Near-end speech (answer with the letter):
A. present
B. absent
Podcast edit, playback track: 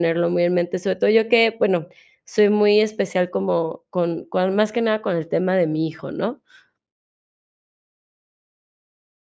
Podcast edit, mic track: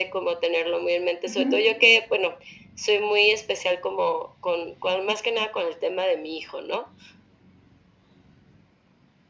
A